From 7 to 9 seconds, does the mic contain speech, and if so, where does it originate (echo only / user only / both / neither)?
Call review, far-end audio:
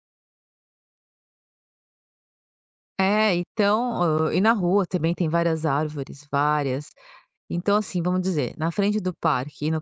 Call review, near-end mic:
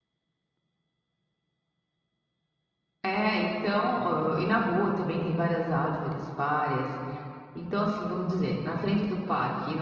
echo only